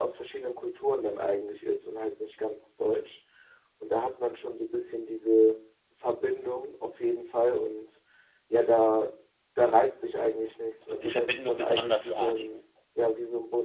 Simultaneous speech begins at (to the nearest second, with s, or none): 11 s